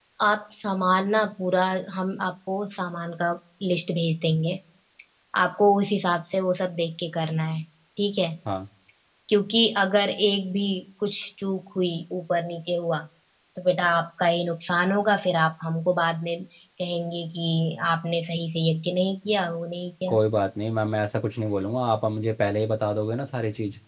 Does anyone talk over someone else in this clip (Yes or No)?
No